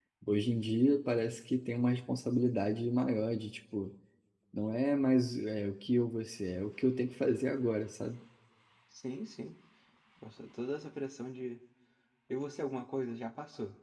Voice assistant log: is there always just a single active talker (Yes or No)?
Yes